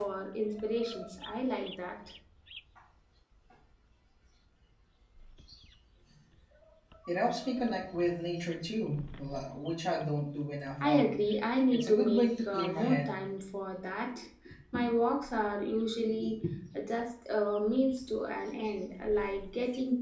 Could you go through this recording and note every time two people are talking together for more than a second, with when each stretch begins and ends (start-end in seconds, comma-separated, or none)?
11.7-13.2